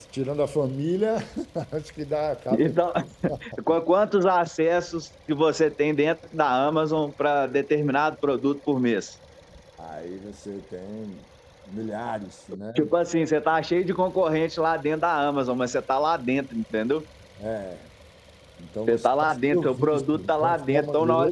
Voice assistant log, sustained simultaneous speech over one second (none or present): present